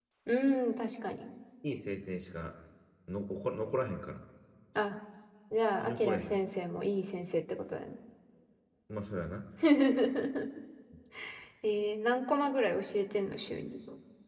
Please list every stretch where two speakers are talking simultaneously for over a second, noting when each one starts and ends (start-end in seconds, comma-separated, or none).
none